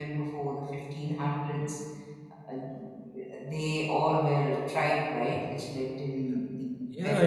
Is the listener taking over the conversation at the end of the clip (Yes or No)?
Yes